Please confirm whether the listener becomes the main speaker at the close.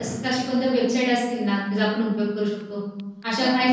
Yes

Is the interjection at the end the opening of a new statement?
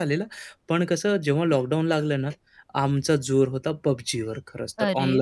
Yes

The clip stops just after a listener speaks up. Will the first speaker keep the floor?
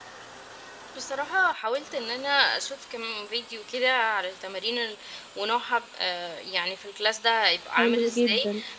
Yes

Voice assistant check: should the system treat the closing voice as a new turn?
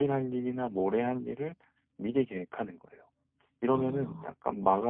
No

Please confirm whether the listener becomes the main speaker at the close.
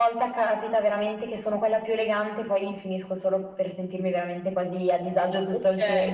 Yes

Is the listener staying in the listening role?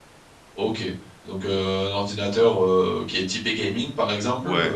Yes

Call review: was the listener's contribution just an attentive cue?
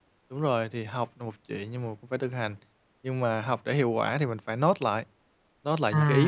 Yes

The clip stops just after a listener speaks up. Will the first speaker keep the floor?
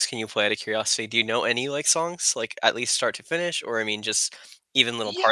No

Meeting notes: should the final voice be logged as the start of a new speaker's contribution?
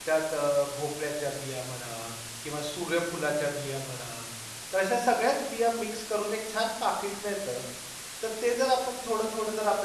No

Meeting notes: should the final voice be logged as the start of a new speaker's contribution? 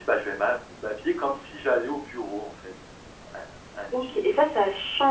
Yes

